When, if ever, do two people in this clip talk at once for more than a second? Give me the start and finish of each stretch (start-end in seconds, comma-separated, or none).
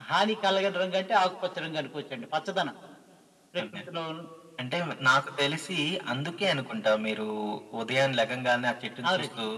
none